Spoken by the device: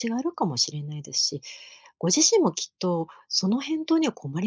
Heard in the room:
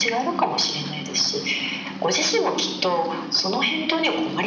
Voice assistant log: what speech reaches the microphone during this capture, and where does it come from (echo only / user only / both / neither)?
echo only